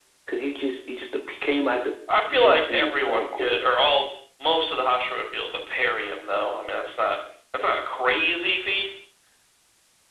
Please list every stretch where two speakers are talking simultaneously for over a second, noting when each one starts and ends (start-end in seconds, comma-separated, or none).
2.3-3.6